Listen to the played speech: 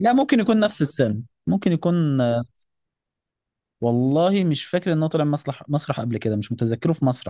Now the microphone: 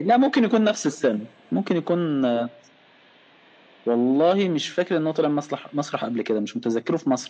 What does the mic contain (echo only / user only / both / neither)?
echo only